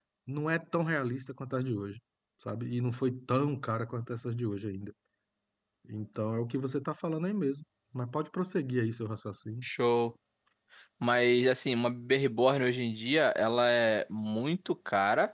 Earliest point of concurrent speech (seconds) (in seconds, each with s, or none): none